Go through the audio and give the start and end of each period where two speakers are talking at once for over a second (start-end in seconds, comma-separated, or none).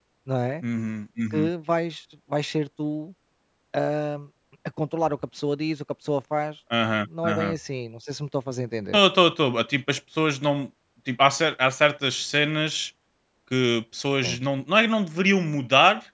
none